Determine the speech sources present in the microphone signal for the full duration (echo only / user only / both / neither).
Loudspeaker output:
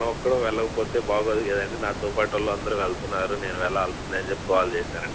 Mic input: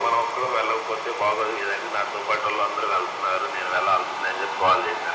echo only